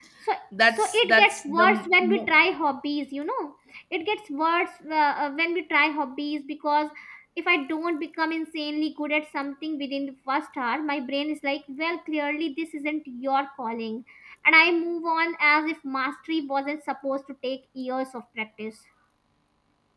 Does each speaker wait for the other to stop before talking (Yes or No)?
No